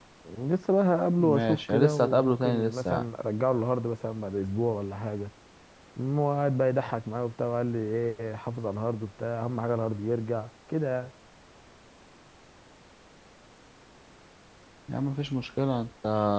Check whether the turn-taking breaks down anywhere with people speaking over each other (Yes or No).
Yes